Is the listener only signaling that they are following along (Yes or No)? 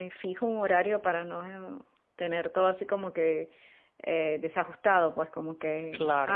Yes